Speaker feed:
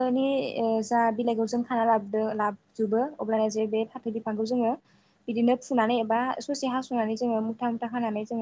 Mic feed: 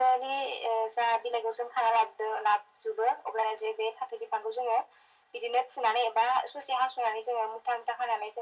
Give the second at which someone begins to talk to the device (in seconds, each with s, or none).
none